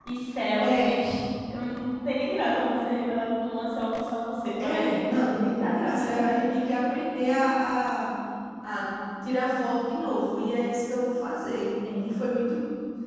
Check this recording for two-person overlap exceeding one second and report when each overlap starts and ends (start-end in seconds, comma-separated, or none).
4.6-5.9